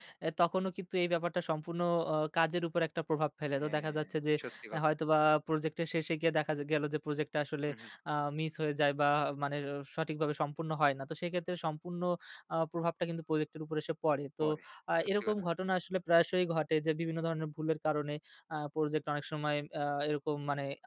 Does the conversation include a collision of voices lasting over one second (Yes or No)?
No